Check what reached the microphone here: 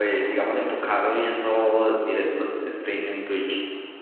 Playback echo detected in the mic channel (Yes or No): No